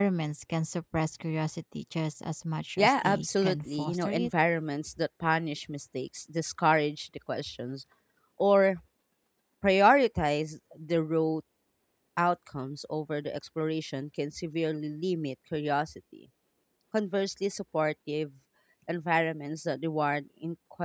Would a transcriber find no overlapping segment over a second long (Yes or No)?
No